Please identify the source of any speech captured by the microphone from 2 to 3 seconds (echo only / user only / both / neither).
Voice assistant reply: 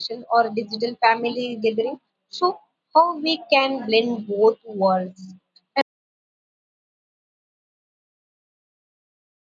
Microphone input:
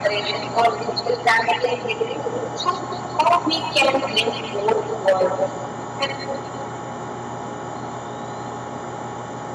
echo only